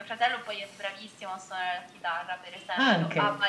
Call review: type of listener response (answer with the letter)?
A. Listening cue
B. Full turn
A